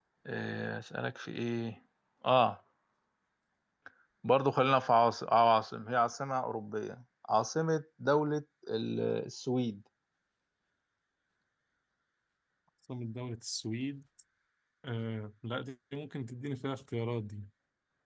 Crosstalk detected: No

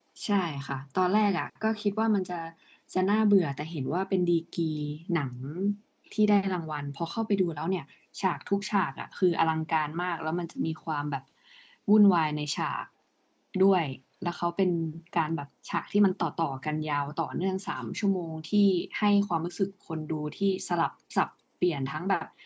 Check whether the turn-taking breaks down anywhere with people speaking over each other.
No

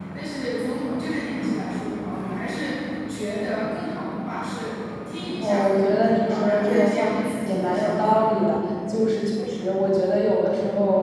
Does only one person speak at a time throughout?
No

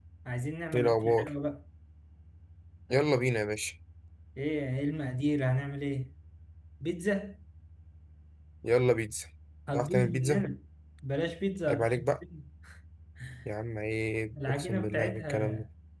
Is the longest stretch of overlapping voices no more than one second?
No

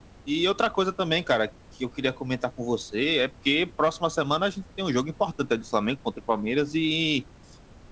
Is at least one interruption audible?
No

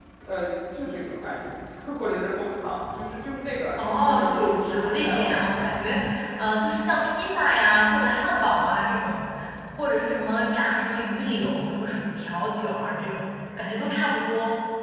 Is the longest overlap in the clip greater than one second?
Yes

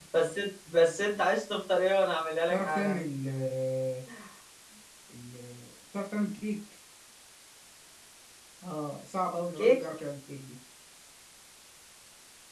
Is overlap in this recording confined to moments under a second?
Yes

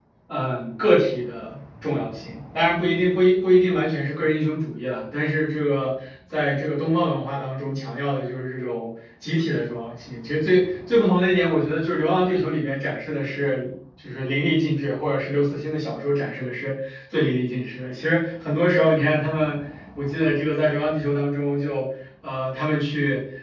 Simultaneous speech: No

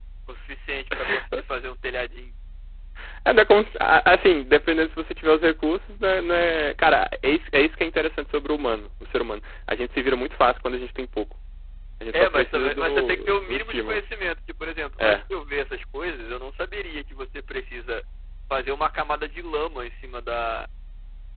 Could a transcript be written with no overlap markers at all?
No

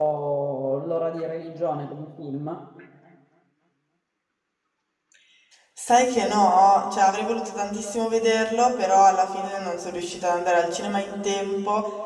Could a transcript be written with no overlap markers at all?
Yes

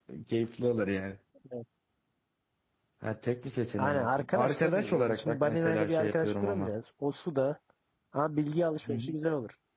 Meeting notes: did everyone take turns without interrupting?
No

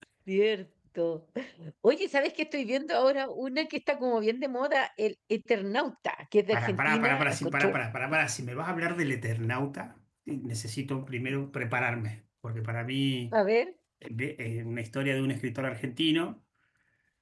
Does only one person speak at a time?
No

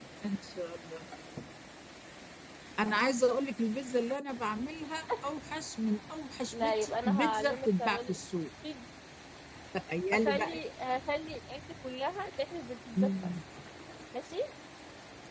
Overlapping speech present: Yes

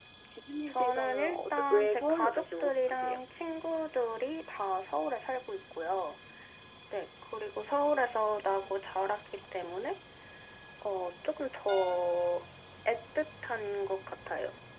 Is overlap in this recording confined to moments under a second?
No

